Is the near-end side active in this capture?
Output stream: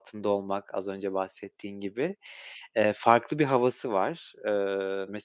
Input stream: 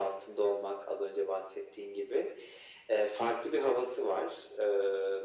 No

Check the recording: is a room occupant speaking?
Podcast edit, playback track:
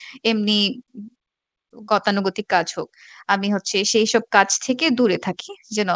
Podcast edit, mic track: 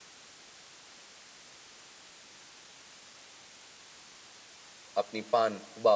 Yes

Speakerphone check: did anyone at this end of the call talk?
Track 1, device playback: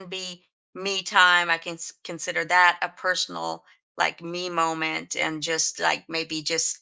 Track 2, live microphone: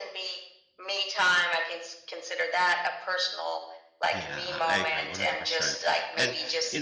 Yes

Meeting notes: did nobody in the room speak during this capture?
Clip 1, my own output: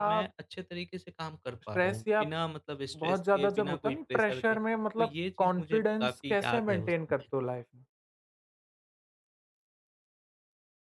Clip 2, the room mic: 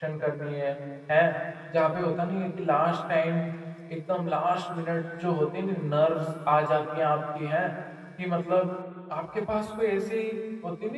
No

